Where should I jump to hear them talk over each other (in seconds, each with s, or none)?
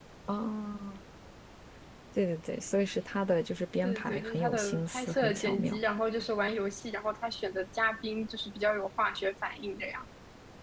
3.8 s